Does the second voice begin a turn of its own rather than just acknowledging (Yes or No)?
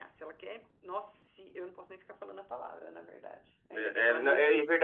Yes